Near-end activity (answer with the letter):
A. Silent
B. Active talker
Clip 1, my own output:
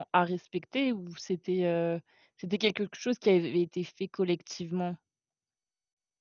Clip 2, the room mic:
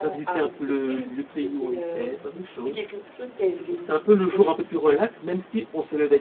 B